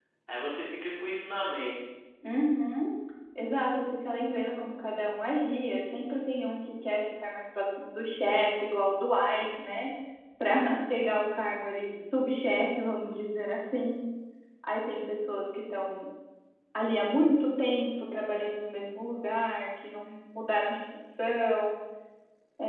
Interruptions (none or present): none